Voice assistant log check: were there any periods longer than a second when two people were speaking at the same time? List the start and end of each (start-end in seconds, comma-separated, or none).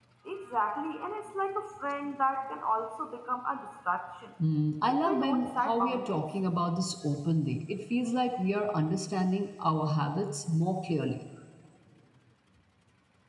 4.9-6.1